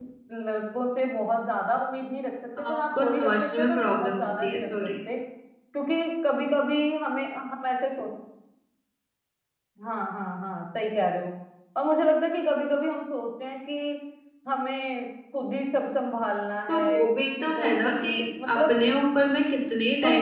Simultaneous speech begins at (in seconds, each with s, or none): 2.6 s